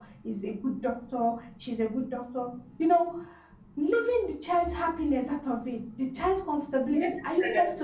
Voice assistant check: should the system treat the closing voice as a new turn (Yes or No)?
No